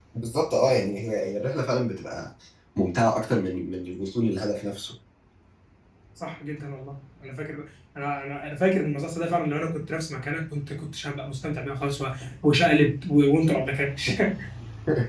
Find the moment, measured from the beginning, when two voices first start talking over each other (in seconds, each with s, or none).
none